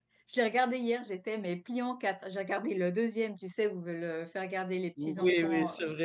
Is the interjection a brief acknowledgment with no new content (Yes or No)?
No